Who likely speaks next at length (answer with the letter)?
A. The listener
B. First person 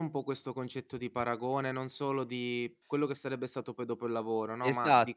A